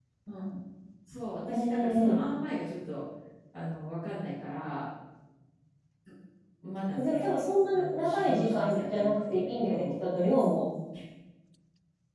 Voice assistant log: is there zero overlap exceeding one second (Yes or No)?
No